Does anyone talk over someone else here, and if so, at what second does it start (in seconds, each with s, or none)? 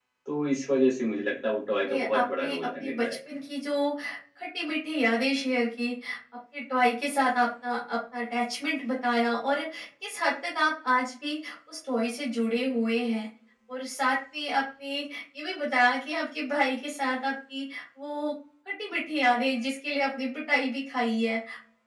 1.9 s